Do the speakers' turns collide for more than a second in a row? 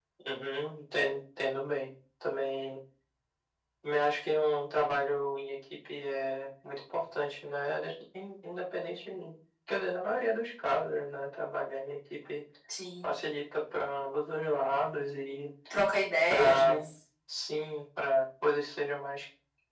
No

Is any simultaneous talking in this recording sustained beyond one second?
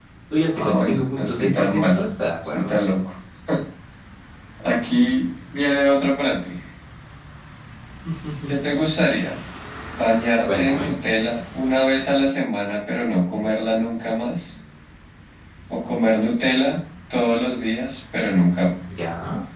Yes, from 0.5 s

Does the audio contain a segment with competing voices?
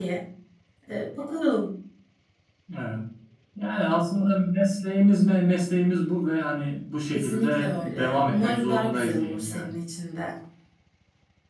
Yes, from 7.1 s

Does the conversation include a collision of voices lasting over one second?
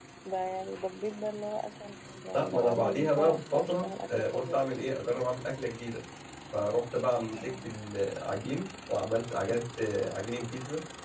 Yes, from 2.3 s

